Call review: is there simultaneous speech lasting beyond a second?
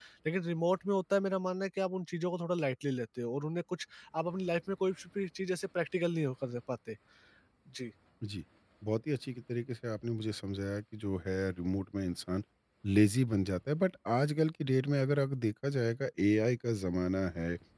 No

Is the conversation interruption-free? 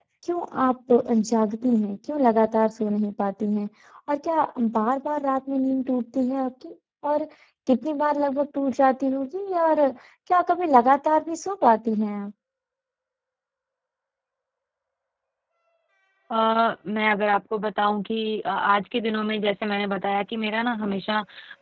Yes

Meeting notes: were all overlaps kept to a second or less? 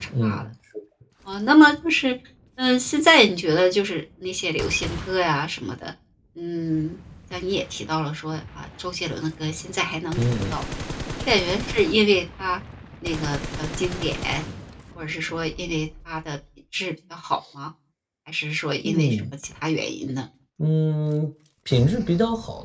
Yes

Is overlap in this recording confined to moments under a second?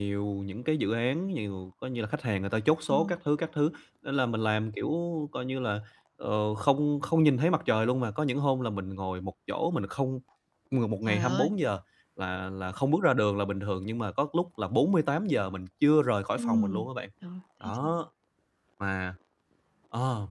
Yes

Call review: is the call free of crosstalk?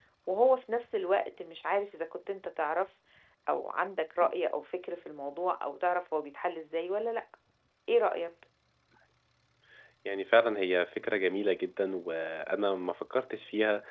Yes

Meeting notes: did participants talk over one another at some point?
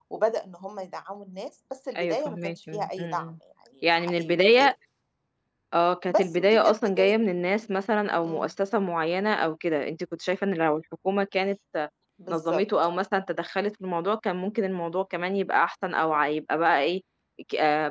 Yes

